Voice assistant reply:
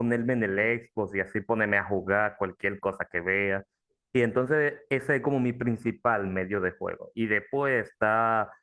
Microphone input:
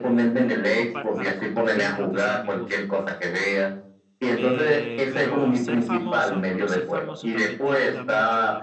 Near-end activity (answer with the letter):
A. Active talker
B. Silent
A